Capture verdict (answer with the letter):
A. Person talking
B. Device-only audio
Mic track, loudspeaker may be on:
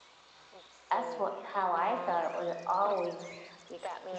A